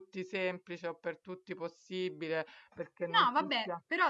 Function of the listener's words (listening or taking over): taking over